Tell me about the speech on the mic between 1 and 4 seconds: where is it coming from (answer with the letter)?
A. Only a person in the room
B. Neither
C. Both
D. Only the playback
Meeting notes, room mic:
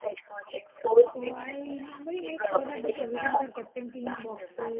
C